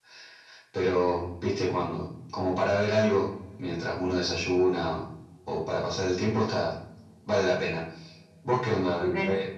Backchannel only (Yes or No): No